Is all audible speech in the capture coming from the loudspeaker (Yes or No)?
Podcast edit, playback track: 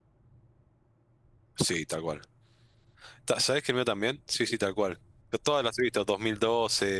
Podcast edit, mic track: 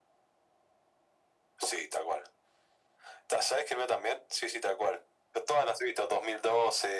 Yes